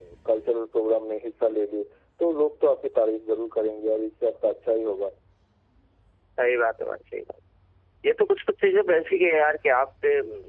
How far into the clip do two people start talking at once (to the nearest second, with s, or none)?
none